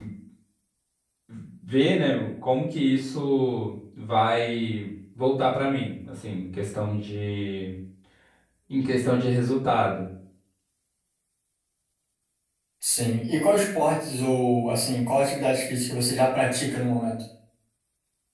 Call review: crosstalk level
none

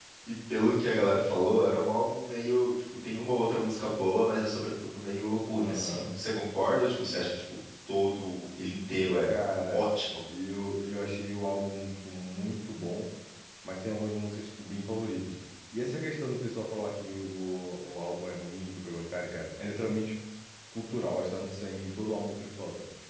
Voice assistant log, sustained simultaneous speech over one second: none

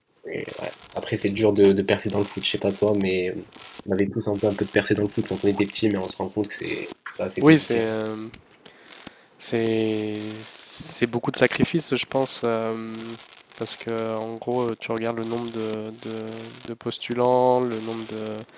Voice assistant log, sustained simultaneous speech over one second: none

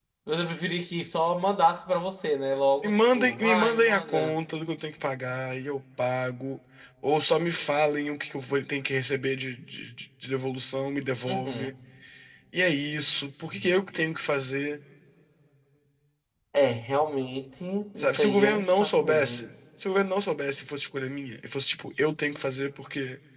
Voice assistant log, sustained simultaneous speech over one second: present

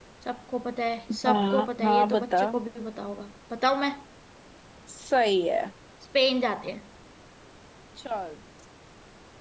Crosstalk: present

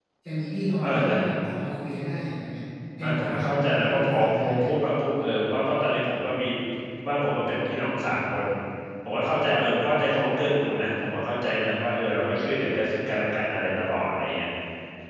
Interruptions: present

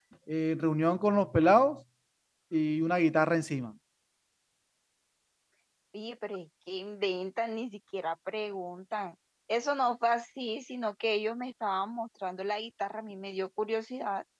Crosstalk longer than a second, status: none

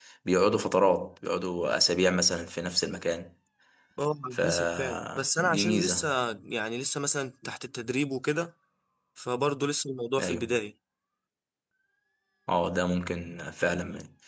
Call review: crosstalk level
present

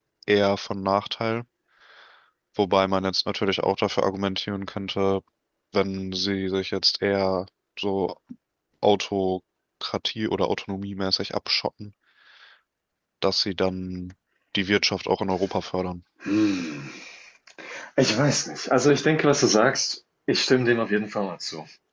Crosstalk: none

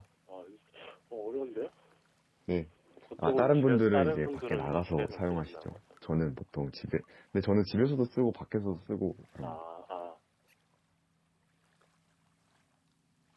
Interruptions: present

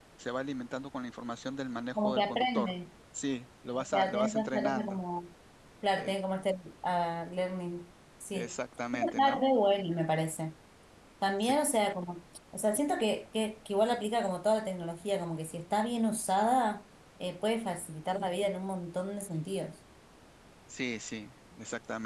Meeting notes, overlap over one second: present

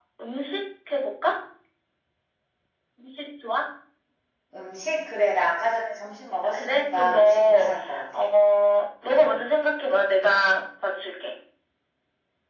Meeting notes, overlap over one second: present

